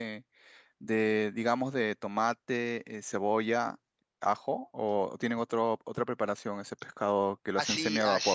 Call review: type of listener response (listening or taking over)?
taking over